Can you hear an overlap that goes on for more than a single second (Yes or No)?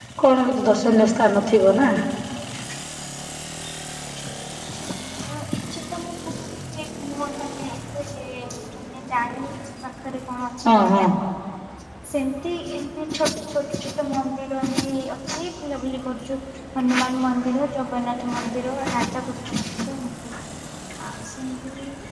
No